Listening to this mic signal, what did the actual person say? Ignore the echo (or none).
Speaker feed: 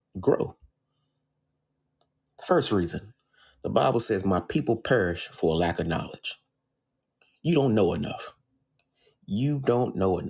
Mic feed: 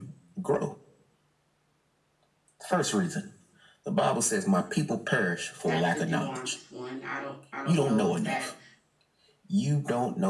that's a nuanced one. I don't I don't know if that